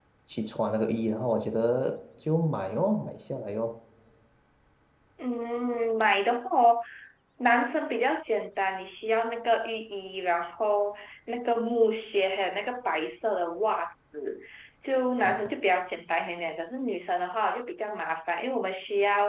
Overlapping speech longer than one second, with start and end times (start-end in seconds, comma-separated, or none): none